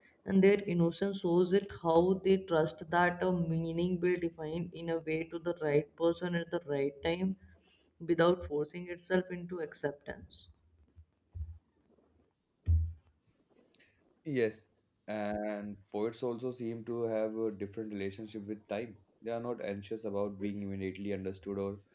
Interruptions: none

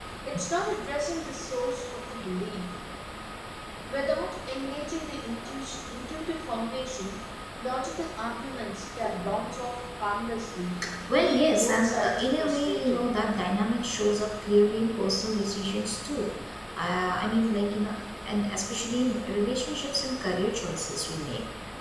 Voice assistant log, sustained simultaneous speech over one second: present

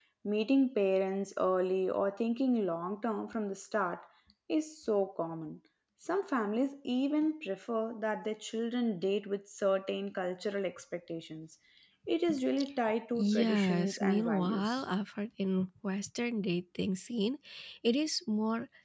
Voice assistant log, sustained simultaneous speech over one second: present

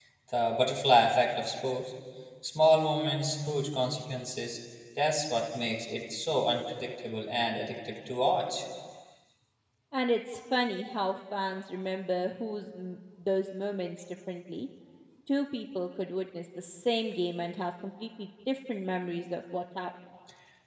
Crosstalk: none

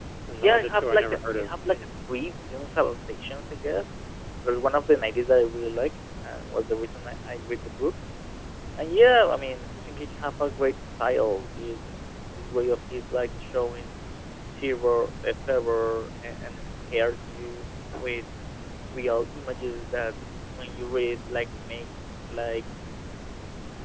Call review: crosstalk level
present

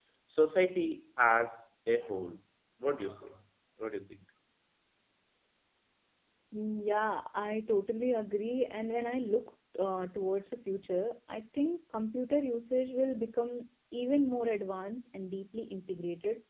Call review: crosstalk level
none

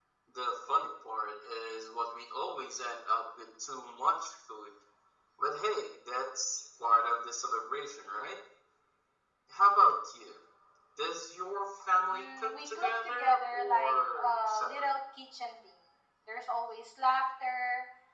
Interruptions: present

